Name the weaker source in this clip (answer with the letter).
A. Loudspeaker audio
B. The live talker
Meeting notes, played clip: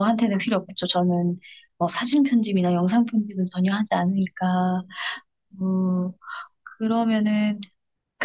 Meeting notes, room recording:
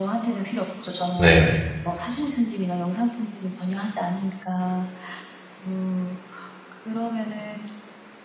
A